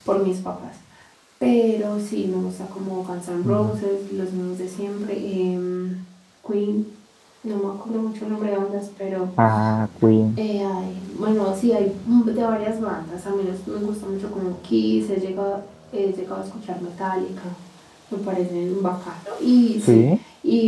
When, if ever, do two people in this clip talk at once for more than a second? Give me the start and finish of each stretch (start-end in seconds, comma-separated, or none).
none